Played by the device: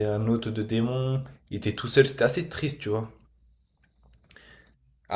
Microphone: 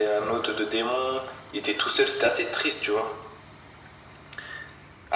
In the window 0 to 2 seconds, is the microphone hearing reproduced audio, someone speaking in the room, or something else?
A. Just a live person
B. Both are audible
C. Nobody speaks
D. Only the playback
D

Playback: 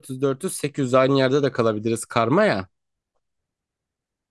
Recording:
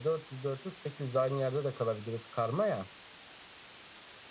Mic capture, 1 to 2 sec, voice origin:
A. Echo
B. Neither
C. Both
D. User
A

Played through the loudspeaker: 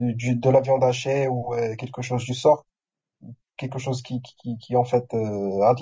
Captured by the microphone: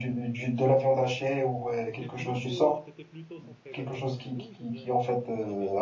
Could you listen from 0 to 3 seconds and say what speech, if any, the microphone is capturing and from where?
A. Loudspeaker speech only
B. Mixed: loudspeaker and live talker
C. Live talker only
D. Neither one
B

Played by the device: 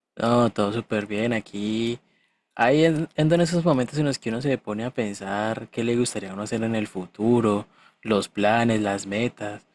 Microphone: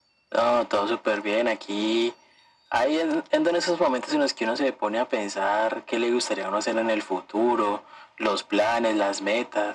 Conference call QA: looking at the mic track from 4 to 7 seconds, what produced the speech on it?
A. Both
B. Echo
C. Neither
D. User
B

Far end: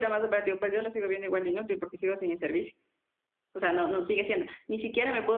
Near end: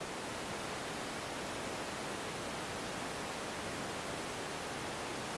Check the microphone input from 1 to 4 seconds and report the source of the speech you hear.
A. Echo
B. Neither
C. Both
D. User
B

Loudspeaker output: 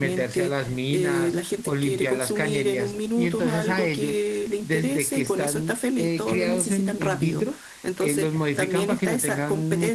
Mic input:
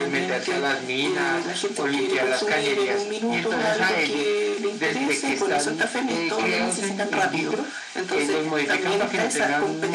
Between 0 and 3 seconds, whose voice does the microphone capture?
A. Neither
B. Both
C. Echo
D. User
C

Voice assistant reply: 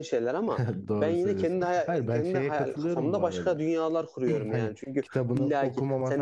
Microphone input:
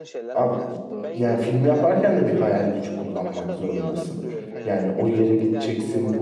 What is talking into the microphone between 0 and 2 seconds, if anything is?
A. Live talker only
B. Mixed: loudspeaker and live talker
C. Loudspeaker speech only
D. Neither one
B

